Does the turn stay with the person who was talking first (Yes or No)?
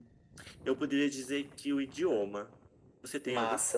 No